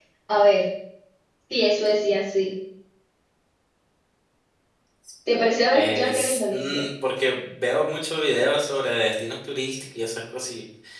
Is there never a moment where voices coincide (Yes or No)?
No